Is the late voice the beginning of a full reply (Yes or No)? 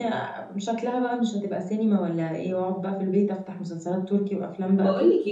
Yes